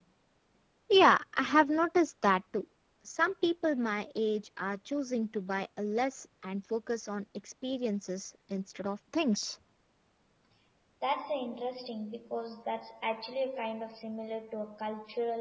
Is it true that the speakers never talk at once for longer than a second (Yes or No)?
Yes